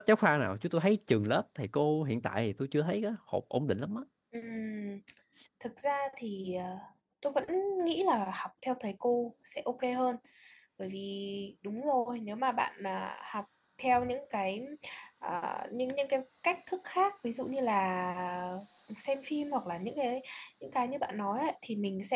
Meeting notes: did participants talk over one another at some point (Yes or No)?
No